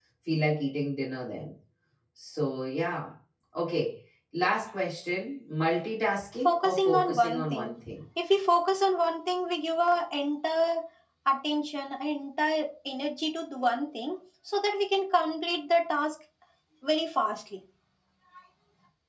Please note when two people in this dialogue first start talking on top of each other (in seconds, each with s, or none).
6.4 s